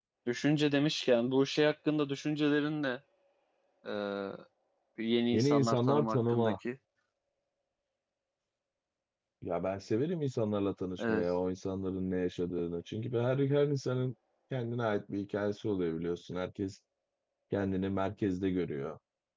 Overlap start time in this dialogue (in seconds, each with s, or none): 5.3 s